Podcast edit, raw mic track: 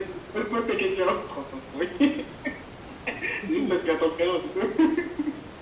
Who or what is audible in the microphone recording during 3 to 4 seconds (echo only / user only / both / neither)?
both